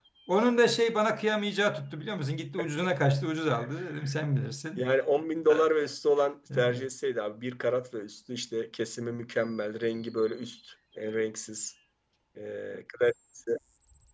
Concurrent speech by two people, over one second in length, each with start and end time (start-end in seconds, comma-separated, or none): none